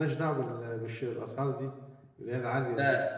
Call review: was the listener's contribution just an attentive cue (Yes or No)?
No